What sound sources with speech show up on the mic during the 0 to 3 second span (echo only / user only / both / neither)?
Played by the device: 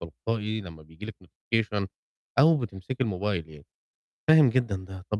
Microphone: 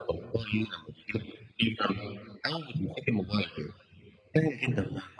echo only